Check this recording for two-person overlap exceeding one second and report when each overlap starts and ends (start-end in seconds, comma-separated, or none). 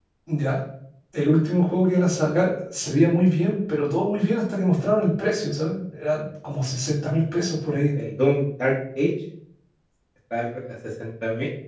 none